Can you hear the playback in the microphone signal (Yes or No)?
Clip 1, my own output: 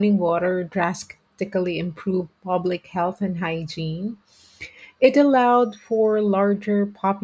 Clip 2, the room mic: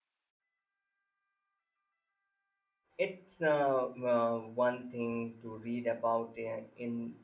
No